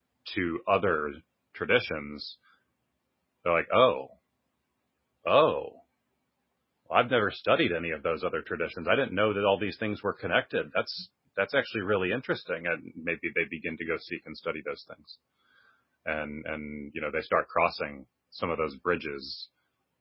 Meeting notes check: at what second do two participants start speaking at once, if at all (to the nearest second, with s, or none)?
none